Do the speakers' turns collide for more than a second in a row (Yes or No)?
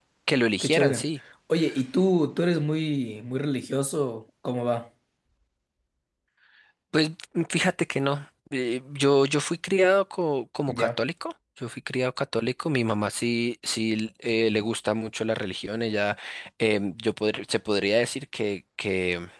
No